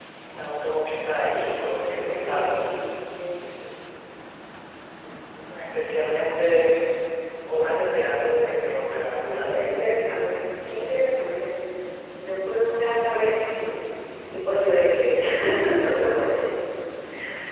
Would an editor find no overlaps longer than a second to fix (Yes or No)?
No